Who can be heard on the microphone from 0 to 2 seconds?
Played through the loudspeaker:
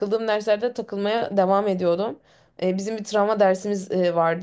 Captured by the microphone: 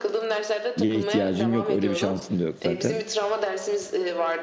both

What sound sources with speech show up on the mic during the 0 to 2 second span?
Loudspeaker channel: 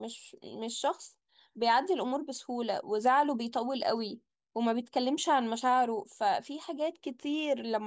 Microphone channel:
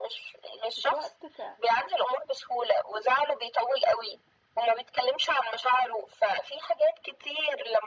both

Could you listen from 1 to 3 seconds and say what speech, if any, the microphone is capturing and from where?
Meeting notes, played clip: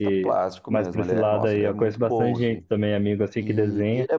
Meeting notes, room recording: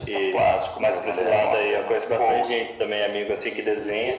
echo only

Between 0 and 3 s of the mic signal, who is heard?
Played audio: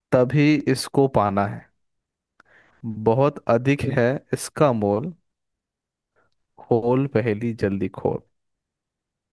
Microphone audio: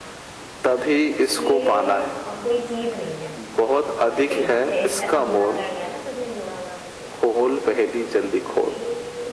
both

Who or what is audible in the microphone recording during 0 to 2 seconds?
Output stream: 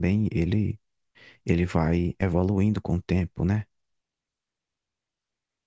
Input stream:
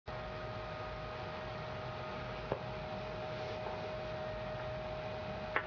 neither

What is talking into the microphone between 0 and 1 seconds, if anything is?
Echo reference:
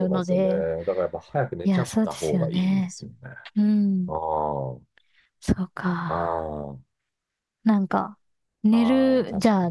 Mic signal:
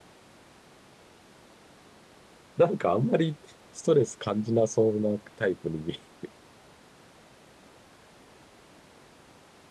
neither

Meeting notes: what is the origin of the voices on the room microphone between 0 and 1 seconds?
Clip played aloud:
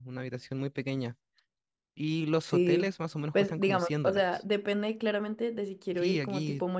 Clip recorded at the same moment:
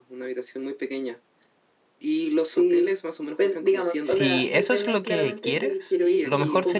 echo only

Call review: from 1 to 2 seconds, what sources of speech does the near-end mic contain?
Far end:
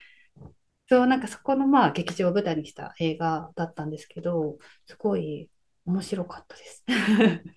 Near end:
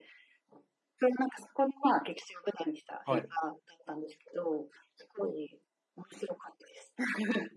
echo only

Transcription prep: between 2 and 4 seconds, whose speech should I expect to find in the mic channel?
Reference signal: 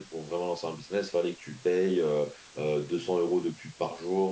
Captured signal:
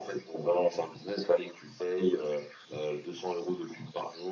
echo only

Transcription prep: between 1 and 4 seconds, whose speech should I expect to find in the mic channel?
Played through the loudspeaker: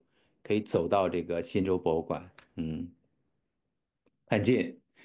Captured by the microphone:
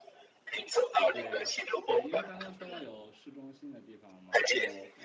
both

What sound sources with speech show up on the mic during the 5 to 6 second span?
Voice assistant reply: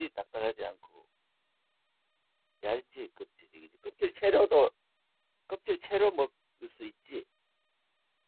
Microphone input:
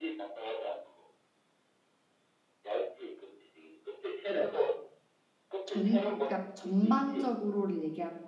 both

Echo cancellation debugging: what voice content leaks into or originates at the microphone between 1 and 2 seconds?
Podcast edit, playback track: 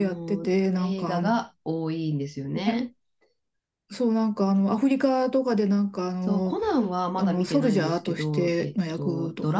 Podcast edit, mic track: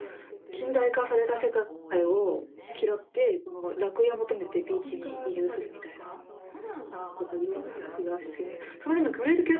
both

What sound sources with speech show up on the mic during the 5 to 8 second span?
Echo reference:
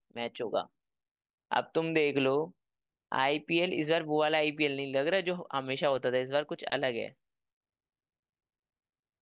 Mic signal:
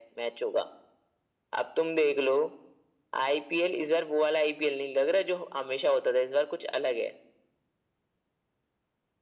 echo only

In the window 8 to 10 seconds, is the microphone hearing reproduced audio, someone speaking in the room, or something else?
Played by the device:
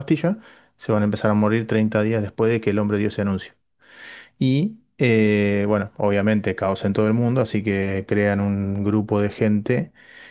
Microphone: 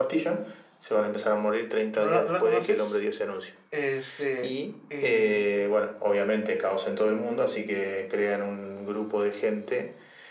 echo only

